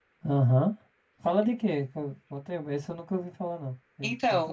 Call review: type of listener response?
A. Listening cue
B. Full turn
B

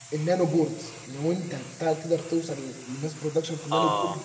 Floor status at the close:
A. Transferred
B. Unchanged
B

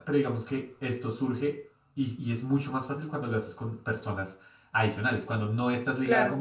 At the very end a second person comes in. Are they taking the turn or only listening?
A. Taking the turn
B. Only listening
B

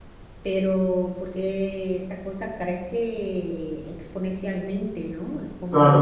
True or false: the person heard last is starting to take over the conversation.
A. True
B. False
A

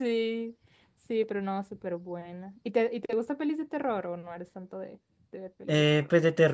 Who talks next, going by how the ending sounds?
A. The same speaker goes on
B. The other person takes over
B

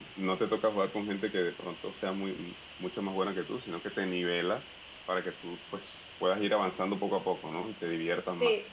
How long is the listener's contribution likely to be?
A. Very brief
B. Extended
B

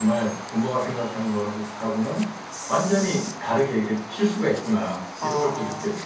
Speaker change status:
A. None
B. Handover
B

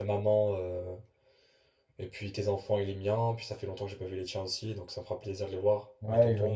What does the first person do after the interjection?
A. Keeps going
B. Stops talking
B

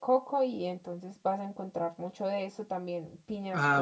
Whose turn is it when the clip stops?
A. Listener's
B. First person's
B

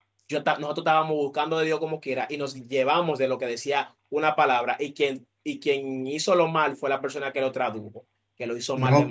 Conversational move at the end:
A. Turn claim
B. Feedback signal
A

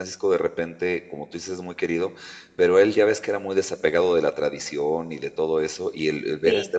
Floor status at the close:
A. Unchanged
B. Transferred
A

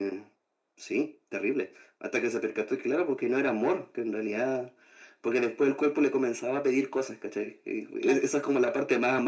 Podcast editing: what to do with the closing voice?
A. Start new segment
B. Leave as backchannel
B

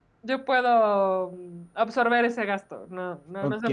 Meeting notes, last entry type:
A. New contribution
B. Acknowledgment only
A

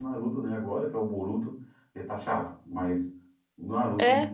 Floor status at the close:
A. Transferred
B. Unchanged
B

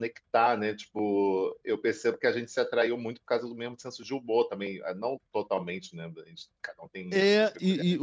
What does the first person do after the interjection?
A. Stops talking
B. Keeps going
A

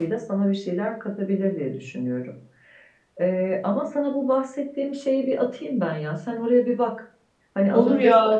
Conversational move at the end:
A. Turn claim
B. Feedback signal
A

